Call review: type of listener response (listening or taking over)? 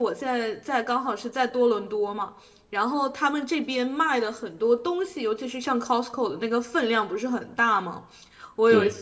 listening